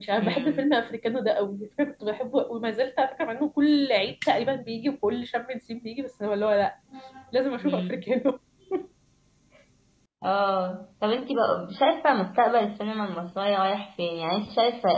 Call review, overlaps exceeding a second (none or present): none